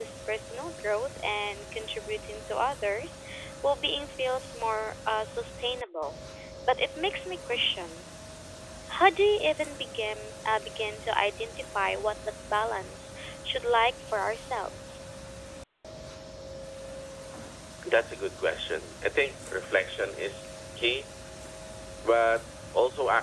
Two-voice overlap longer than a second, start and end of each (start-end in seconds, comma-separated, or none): none